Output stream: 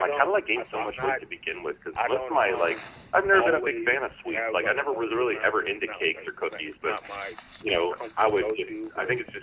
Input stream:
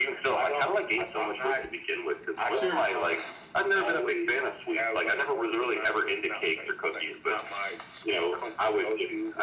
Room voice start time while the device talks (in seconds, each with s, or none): 2.5 s